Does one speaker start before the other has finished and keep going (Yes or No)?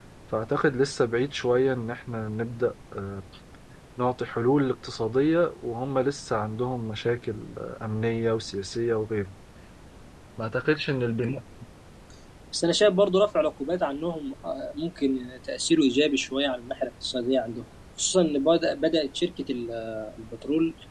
No